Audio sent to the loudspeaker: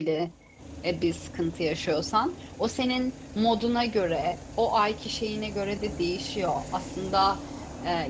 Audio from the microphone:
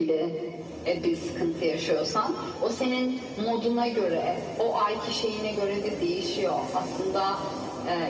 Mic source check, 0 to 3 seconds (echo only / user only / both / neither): echo only